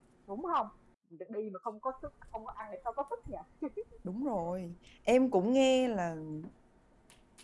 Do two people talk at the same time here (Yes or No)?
No